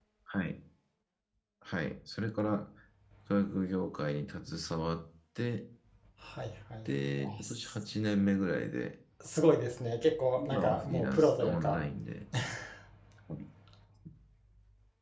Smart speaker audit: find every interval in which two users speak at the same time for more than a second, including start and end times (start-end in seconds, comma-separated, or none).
10.4-11.8